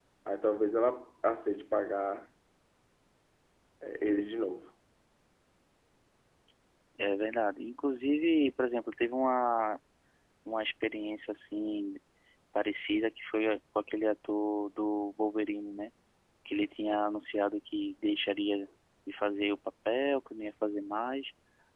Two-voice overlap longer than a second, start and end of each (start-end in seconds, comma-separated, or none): none